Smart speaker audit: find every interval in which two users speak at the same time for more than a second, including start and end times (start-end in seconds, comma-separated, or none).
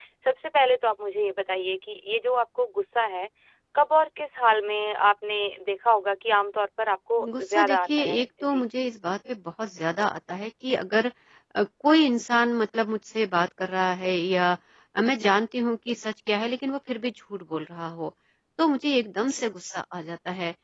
7.4-8.7